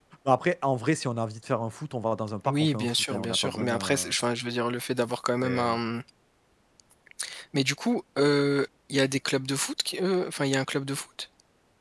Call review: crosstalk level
present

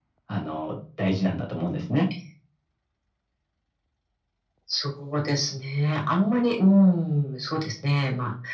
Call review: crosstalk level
none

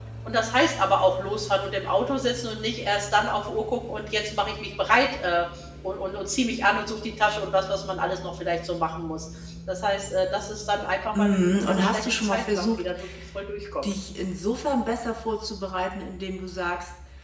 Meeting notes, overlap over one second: present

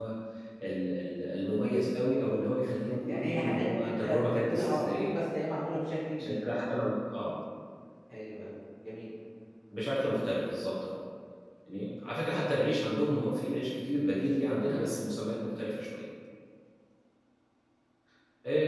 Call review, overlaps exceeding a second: present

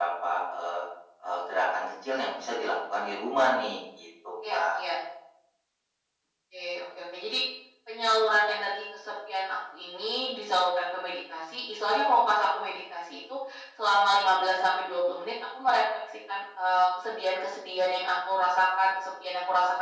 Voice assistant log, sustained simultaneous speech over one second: none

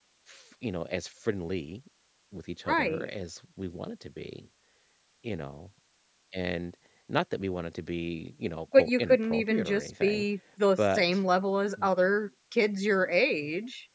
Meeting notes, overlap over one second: present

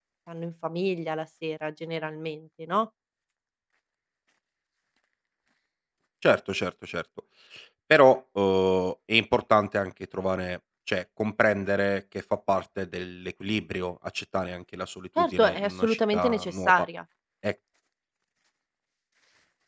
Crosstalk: present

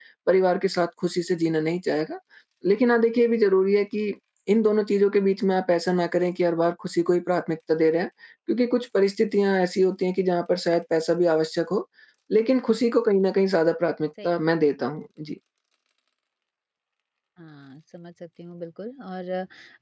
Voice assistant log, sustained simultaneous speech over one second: none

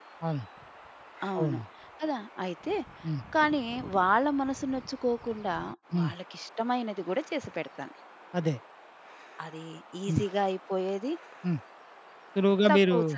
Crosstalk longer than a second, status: none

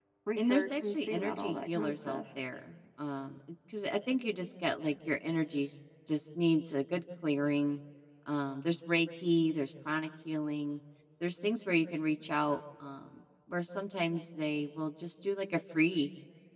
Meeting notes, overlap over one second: present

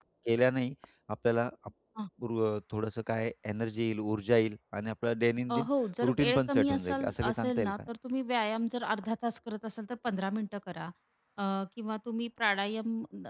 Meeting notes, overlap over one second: present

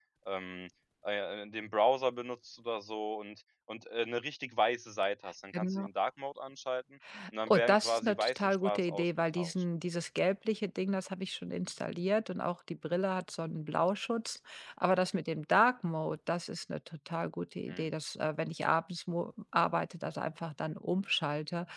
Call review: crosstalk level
present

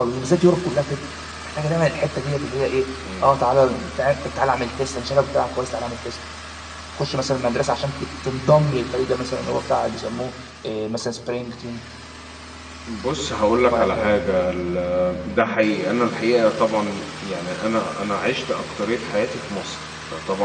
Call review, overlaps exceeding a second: none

